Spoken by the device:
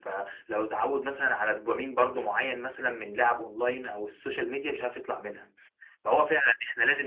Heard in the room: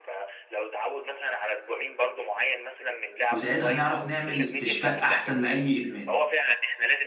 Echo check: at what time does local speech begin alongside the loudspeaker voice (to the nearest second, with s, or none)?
3 s